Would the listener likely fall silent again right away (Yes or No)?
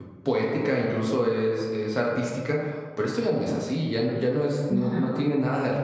Yes